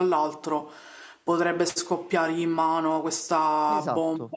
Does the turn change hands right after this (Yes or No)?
No